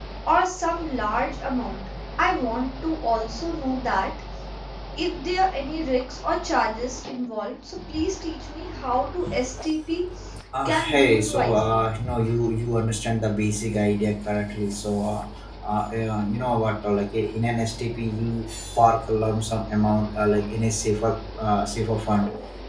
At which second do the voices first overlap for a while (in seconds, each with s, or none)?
10.7 s